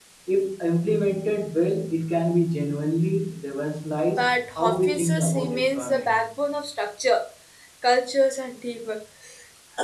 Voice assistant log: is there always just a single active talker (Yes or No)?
No